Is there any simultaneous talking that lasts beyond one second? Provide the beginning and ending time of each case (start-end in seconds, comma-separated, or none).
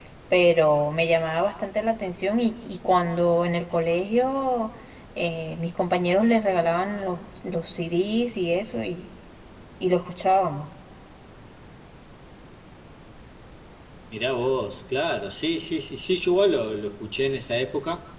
none